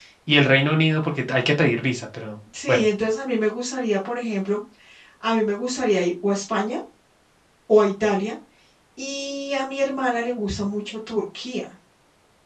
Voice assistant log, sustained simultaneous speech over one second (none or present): none